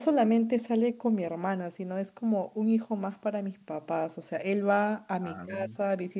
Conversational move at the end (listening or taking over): listening